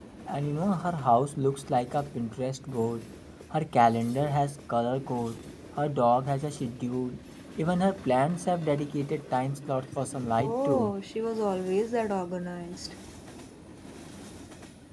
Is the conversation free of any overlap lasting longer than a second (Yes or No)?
Yes